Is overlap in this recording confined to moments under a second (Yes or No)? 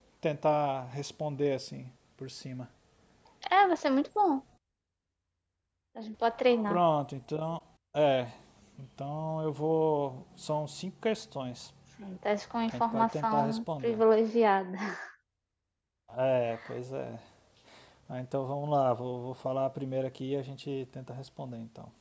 No